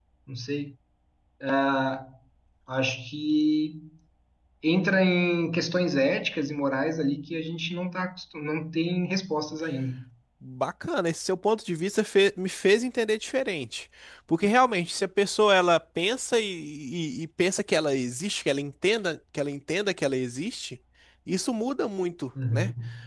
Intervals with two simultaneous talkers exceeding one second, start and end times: none

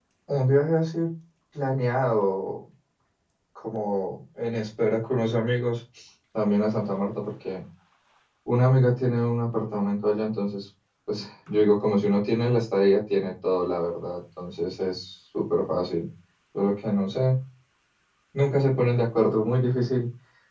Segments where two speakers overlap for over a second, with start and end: none

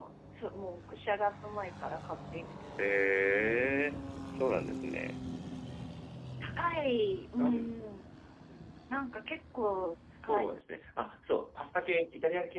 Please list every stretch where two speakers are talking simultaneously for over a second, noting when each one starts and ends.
2.8-4.0

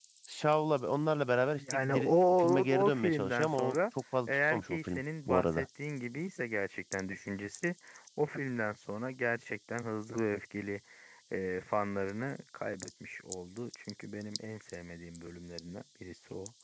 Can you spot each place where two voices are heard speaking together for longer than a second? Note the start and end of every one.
1.6-3.8, 4.3-5.7

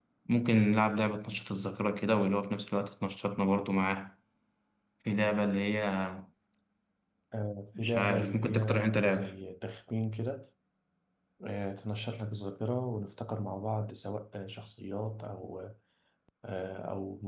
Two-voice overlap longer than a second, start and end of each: 7.8-9.3

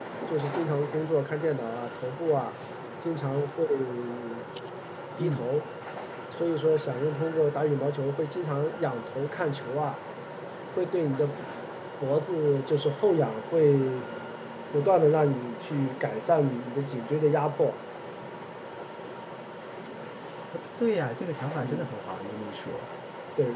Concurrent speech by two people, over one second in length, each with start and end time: none

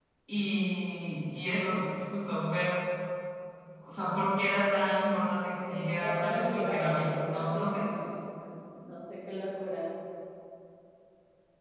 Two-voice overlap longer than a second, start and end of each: 5.7-7.8

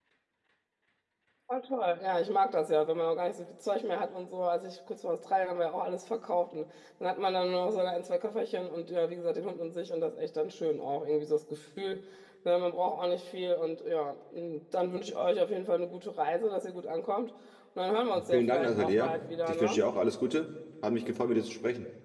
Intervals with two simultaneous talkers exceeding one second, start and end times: 18.3-19.8

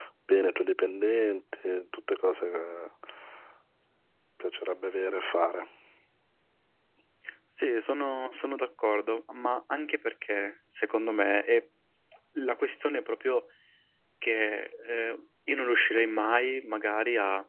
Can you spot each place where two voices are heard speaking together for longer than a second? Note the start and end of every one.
none

